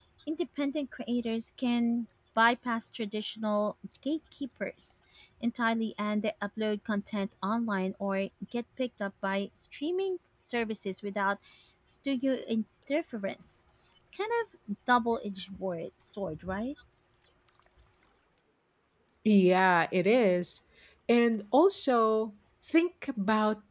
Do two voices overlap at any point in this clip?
No

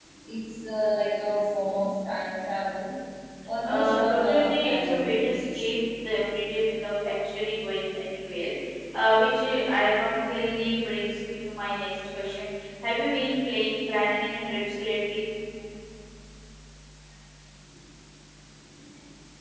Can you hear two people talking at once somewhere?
Yes, from 3.6 s

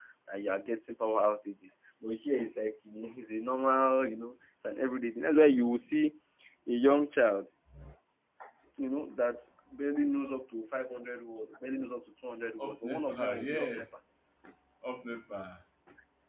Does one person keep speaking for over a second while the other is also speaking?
Yes, from 12.6 s

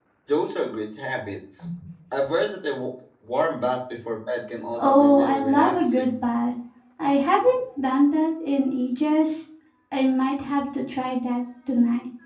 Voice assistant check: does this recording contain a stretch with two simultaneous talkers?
Yes, from 4.7 s

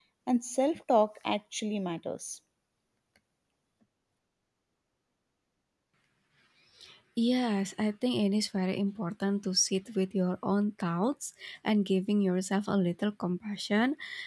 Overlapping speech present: No

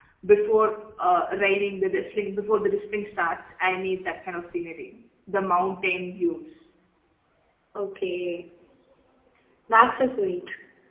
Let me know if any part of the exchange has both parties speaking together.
No

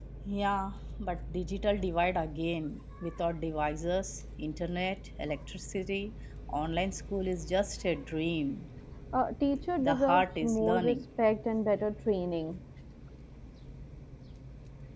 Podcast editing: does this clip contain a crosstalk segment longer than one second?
Yes, from 9.8 s

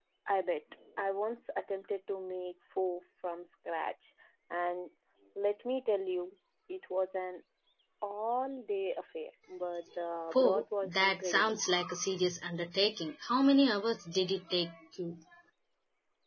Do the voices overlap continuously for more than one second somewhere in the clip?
Yes, from 10.3 s

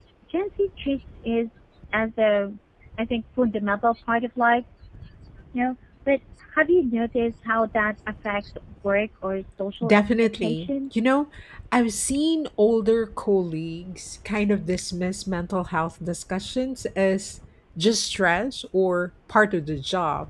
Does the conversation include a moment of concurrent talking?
Yes, from 9.8 s

